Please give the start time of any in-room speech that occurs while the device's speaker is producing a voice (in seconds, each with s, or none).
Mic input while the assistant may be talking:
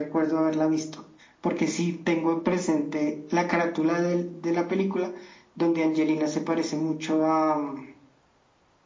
none